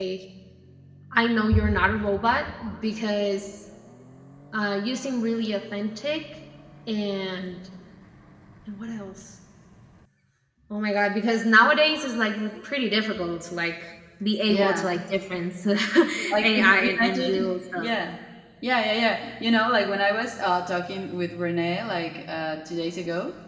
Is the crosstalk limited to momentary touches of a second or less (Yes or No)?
No